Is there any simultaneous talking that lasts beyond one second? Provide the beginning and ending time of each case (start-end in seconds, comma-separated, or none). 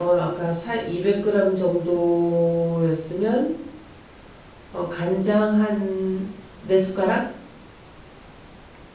none